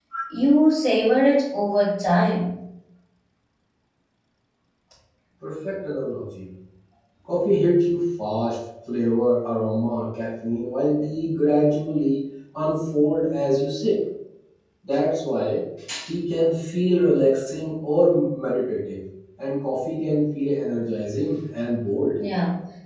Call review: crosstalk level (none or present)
none